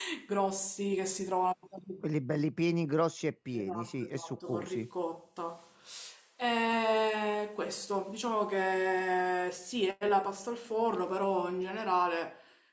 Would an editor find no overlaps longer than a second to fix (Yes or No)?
No